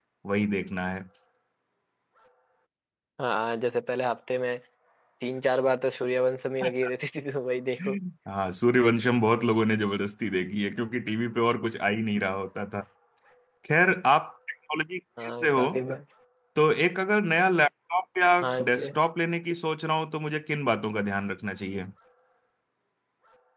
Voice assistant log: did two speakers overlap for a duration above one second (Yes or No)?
No